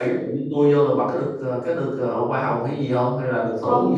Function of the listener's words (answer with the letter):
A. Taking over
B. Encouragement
A